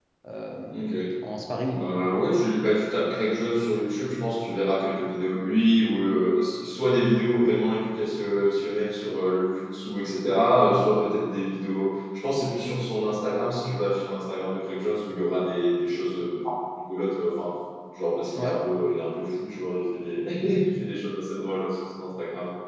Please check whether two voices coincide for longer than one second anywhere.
No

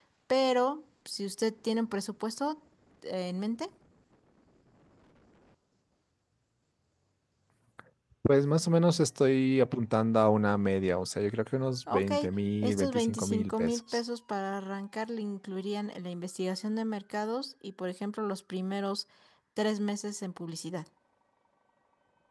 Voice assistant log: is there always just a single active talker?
No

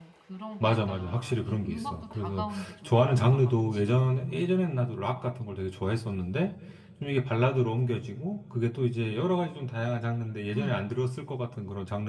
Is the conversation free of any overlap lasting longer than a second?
No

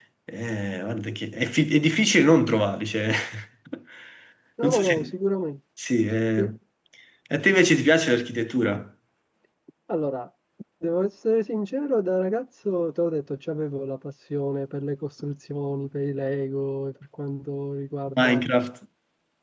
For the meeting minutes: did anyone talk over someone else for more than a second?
No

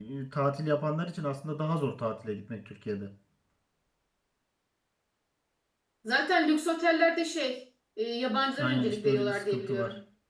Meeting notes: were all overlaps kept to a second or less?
No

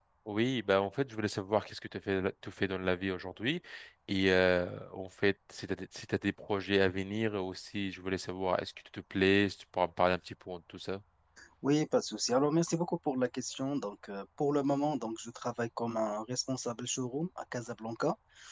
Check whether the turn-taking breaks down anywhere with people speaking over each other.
No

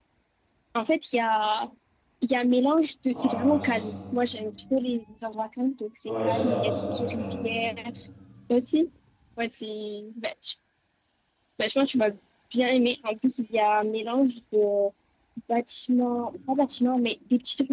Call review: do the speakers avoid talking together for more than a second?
No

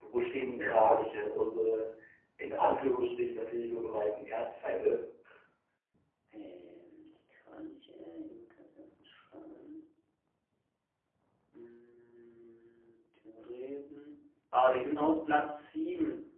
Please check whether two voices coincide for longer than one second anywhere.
No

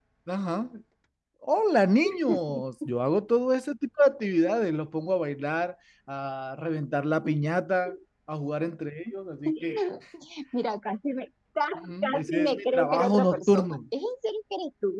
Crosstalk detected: Yes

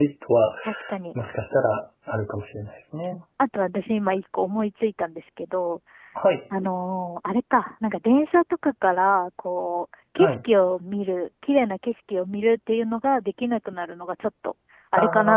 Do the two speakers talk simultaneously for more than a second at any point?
No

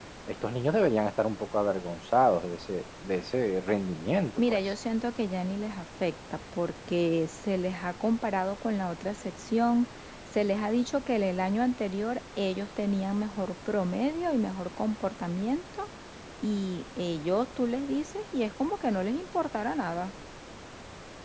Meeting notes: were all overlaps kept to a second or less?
Yes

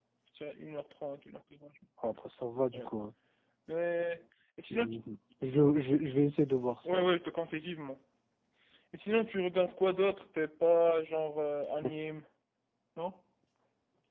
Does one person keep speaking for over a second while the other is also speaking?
No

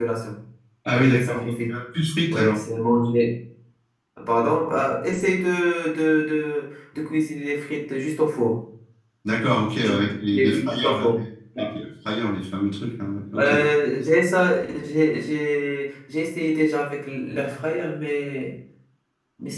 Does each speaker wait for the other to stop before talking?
No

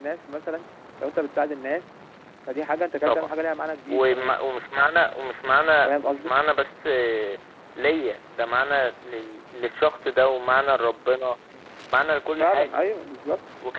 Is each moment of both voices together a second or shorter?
Yes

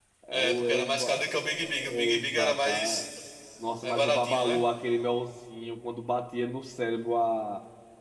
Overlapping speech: Yes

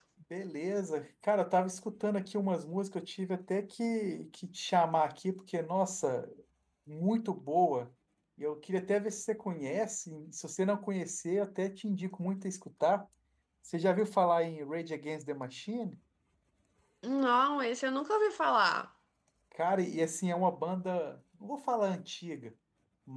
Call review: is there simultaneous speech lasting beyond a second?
No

